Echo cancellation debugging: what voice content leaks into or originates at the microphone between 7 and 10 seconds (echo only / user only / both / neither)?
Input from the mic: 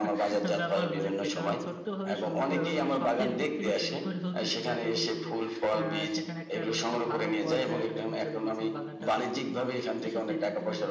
both